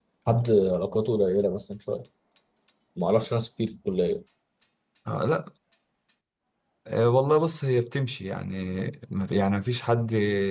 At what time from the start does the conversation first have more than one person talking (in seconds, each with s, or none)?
none